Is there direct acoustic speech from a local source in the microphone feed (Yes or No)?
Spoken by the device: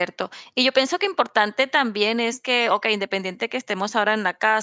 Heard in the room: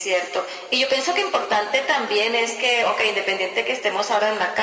No